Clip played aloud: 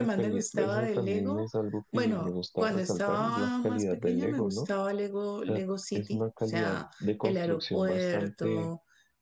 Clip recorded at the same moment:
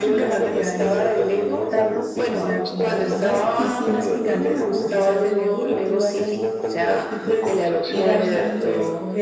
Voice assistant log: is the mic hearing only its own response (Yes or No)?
No